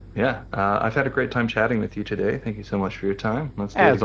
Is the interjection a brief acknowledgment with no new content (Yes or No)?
No